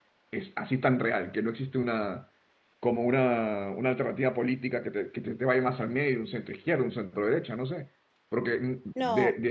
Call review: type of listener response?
listening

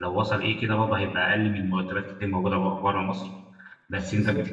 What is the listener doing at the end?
listening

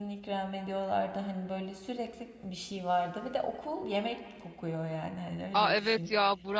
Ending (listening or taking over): taking over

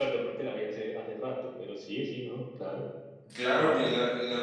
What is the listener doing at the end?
taking over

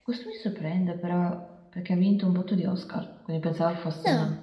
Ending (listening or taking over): listening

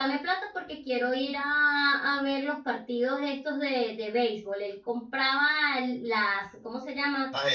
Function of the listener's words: listening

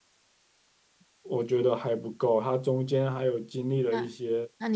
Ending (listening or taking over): taking over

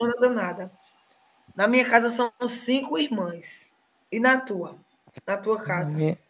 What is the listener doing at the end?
taking over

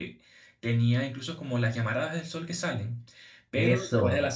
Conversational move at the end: listening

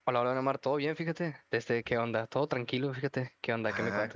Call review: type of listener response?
taking over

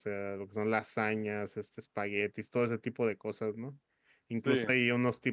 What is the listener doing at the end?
listening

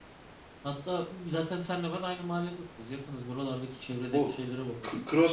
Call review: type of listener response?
taking over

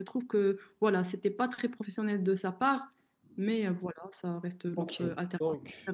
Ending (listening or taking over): taking over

